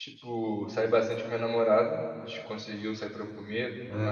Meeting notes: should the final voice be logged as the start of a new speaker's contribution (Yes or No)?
No